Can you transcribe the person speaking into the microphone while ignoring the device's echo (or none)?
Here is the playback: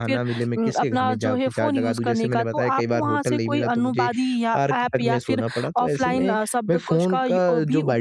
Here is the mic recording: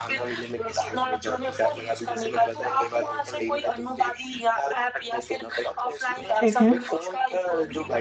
ठीक है।